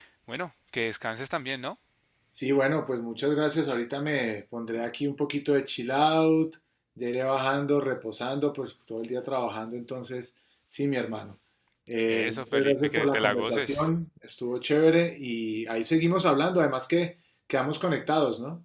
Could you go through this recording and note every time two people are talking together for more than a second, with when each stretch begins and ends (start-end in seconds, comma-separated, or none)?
12.1-13.9